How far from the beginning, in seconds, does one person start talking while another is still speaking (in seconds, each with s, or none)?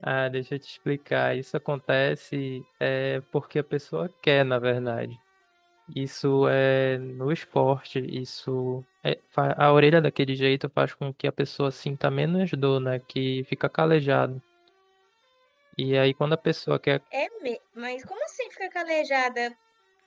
none